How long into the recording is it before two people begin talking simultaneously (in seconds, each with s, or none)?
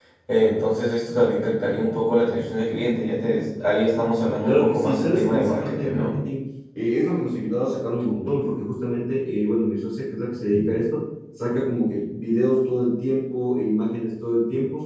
4.4 s